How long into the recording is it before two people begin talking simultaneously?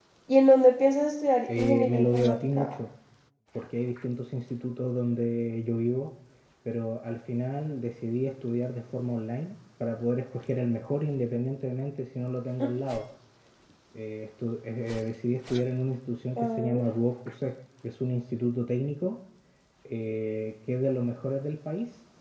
1.5 s

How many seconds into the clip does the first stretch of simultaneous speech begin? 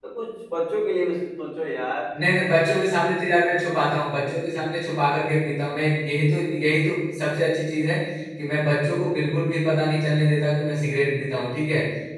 none

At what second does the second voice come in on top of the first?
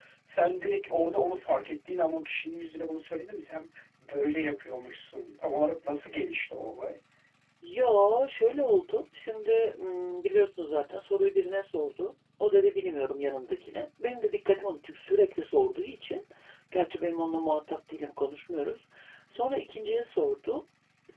none

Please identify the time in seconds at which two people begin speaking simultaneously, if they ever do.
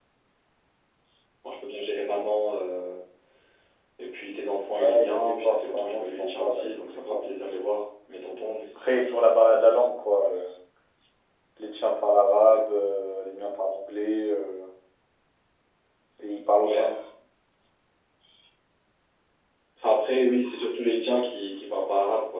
4.7 s

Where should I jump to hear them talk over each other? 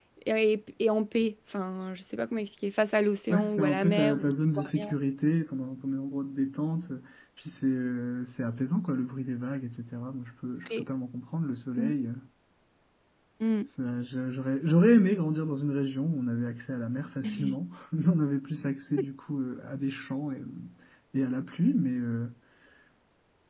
3.3 s

